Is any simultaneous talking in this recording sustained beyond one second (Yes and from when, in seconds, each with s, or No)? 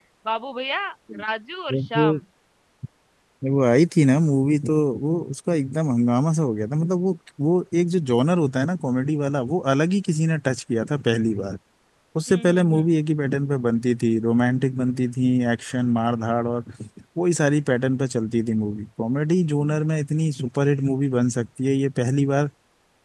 No